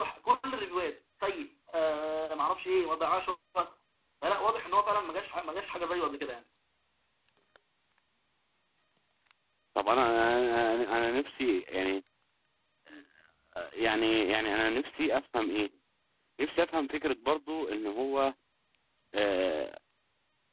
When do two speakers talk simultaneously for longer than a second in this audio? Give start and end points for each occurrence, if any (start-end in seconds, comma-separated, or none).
none